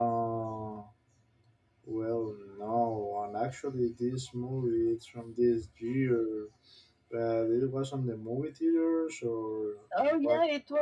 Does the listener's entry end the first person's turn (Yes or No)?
Yes